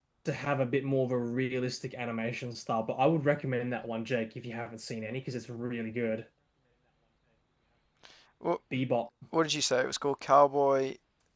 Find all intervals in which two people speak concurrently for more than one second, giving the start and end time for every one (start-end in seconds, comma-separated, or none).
none